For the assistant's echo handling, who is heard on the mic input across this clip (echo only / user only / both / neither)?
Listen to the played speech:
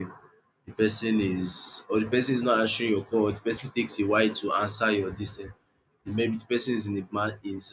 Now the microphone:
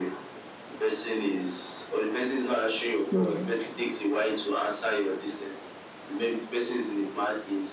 both